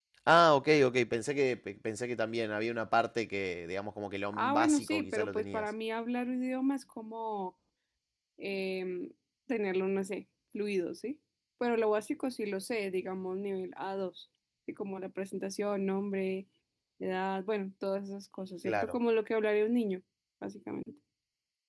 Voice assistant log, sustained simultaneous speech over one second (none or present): present